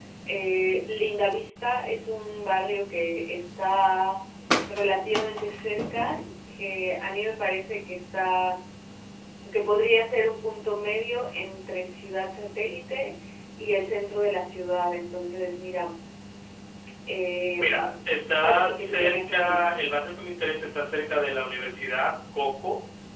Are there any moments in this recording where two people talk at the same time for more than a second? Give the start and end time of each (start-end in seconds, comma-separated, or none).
18.4-19.7